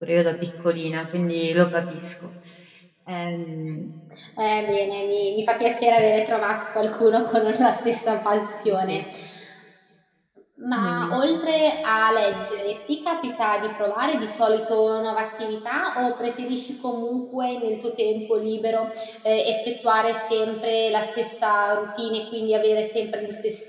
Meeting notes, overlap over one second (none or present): none